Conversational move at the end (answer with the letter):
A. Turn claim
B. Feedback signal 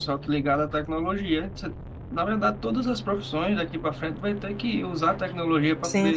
B